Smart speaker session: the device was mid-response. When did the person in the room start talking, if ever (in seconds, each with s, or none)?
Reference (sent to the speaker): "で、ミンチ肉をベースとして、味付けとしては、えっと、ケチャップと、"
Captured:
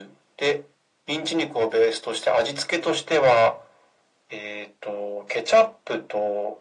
none